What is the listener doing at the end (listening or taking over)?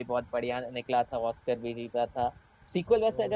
listening